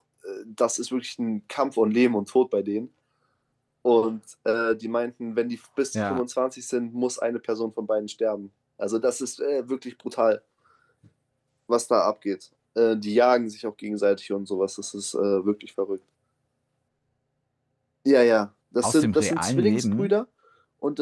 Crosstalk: present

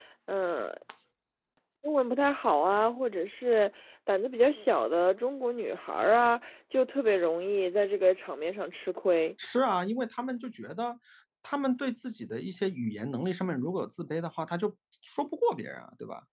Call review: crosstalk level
none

